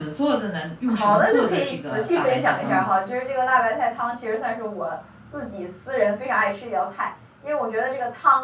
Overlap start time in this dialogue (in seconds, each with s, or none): 0.9 s